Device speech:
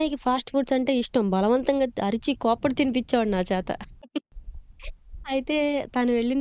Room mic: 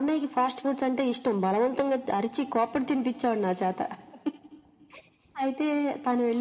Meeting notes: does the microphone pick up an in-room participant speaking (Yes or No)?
No